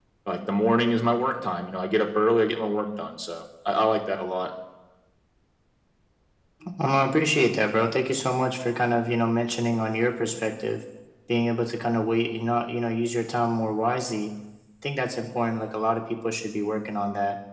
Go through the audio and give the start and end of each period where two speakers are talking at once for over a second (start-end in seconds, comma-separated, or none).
none